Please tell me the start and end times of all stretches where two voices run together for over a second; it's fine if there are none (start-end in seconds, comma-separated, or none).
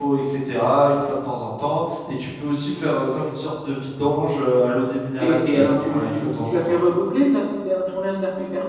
5.2-6.8